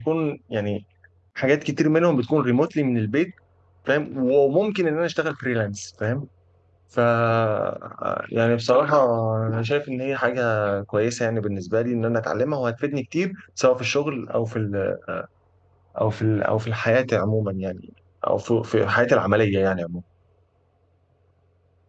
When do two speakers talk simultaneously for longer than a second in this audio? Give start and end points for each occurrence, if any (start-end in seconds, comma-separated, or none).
none